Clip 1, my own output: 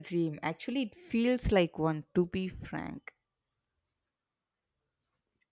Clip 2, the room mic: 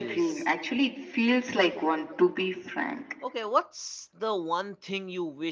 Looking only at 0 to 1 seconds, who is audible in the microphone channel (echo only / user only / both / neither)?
both